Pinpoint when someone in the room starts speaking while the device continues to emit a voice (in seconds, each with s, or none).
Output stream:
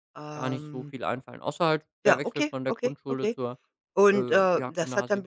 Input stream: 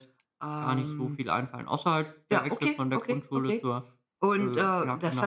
none